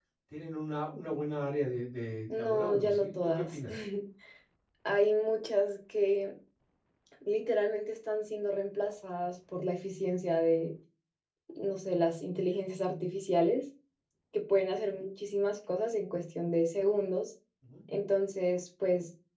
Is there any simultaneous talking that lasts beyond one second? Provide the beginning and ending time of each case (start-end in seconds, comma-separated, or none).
2.3-3.6